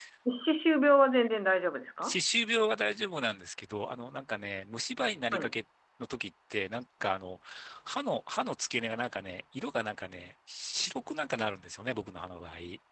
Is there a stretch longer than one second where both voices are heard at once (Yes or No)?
No